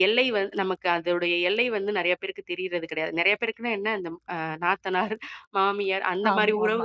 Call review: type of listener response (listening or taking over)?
listening